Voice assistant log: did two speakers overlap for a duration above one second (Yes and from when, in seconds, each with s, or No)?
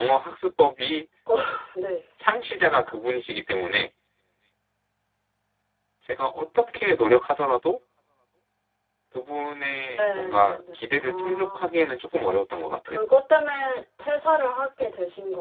Yes, from 10.0 s